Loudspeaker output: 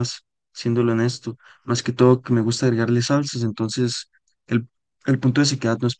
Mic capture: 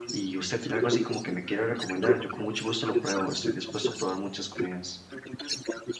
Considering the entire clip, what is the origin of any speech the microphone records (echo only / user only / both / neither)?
both